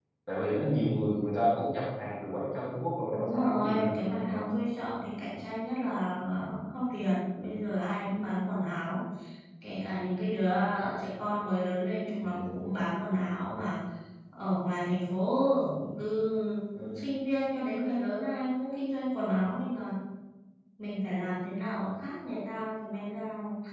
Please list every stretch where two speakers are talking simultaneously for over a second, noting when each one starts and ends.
3.1-4.5

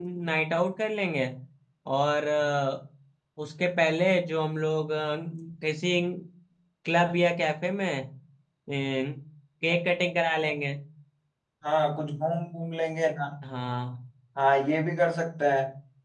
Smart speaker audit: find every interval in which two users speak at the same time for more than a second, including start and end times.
none

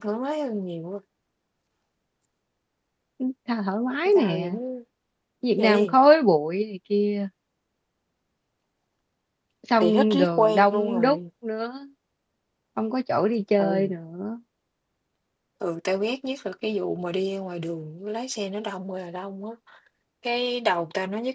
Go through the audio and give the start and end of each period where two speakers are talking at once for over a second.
9.8-11.2

